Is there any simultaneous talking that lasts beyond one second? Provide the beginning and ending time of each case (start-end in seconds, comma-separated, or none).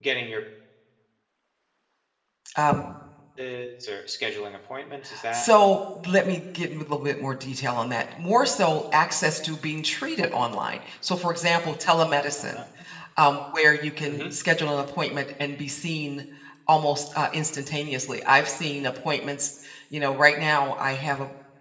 none